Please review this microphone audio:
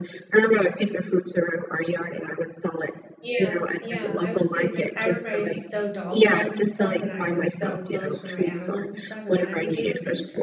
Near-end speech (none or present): present